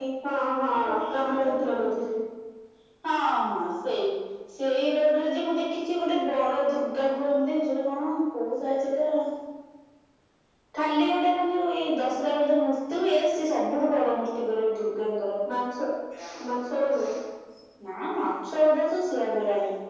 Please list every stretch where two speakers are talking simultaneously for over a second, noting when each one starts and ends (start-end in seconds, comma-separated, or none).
none